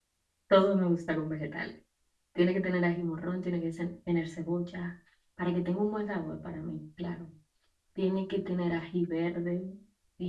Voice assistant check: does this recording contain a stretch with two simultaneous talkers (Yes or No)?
No